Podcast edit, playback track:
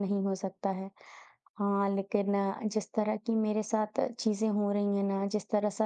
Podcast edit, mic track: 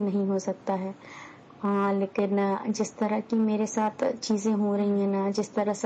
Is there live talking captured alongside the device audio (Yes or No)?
Yes